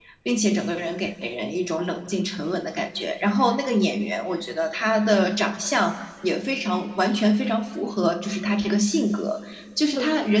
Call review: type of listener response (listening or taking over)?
listening